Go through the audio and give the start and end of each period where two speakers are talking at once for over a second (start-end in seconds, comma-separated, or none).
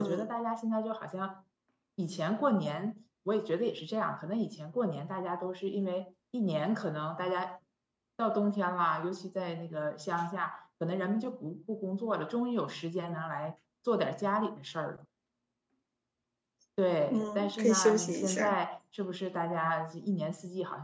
17.1-18.6